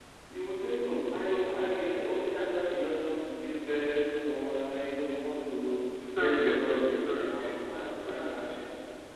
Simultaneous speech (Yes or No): Yes